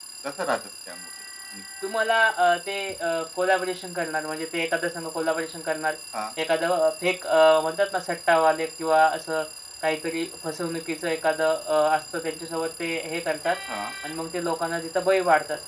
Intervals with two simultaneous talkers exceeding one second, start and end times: none

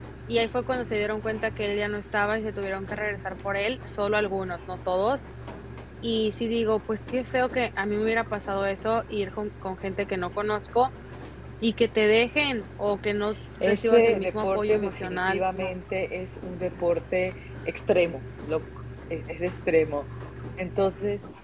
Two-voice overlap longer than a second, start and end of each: 13.6-15.7

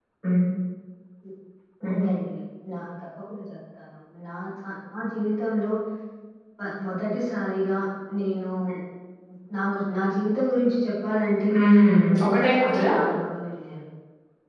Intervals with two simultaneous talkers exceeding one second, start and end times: 11.6-12.9

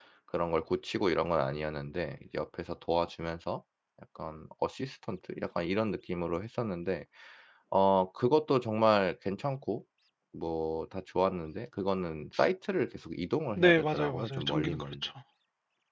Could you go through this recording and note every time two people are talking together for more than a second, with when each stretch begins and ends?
13.6-14.8

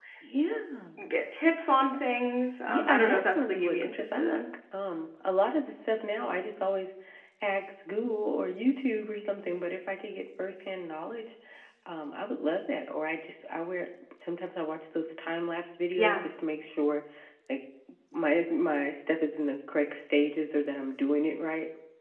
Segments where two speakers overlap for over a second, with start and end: 2.7-4.4

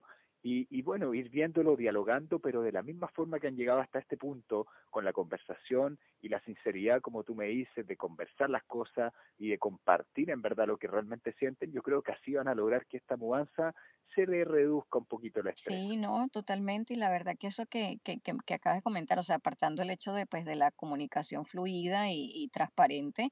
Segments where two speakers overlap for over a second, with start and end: none

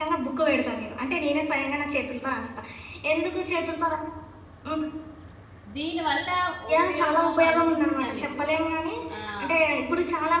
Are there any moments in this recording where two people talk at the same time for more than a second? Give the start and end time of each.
6.7-8.4

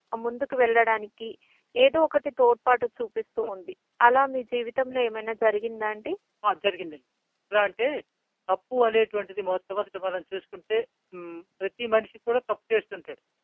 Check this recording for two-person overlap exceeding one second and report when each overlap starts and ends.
none

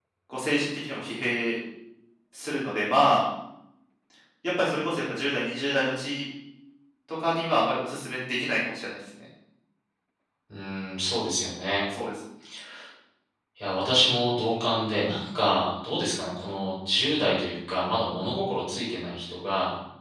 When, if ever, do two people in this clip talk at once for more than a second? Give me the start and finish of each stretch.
none

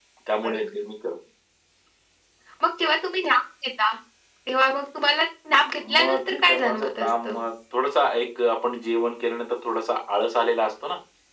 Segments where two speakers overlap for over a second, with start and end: 6.0-7.4

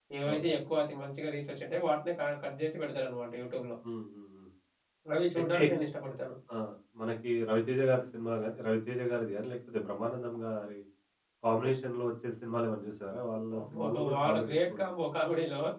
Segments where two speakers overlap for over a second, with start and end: 13.6-15.1

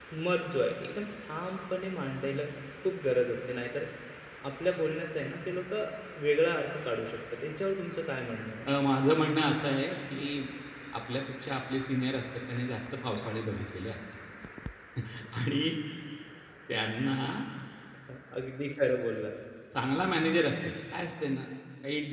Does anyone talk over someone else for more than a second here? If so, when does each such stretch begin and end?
none

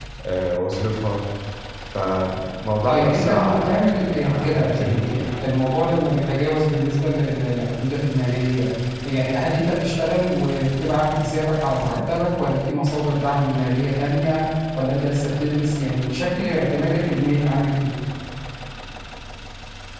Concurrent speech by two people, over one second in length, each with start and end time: 2.9-5.2

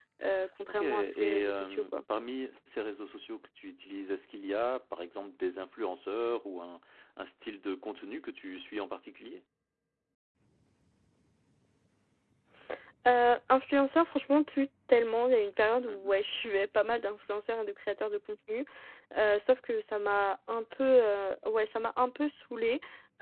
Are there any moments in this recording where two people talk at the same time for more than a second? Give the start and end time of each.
0.7-1.9

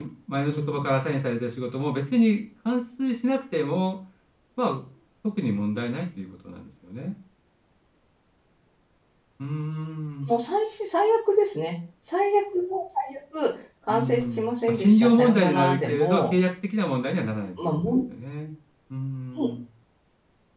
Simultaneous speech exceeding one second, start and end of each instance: 13.9-16.3

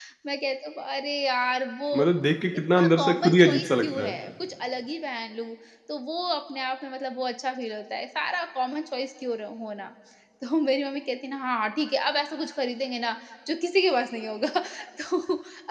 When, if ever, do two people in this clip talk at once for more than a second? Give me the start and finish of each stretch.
2.8-4.2

